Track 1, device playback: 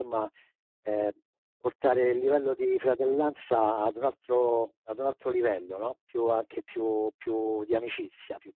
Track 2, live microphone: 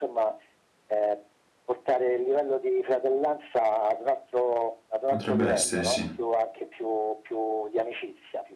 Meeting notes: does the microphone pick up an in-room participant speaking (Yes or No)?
Yes